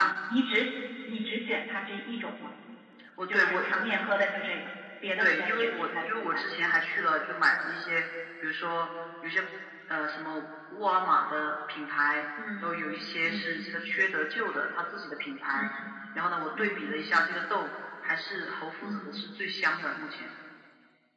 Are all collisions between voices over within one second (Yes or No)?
No